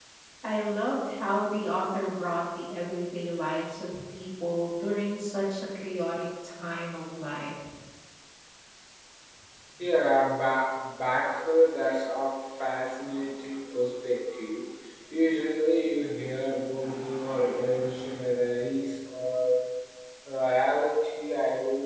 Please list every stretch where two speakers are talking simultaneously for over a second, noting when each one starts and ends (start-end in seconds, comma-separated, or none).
none